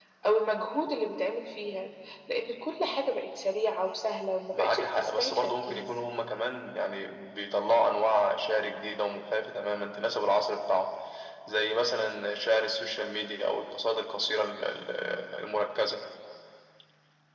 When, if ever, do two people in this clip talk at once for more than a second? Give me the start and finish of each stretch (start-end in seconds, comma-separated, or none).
4.5-5.9